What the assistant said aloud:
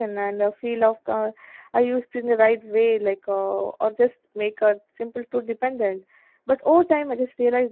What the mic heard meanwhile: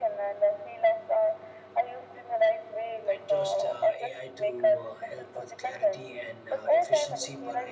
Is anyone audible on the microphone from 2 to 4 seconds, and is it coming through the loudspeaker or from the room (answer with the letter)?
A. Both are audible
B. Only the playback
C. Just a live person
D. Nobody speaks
A